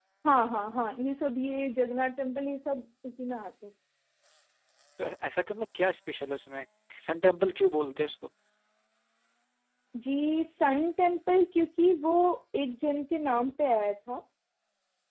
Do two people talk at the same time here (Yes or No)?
No